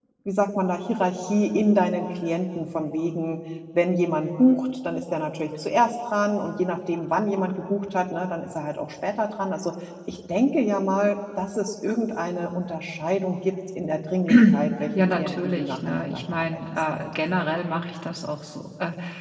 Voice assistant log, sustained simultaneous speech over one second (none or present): present